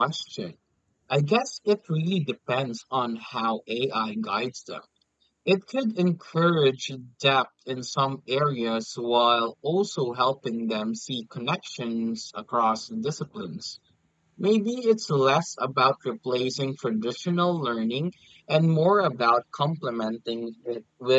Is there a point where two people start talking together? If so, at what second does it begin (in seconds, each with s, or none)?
none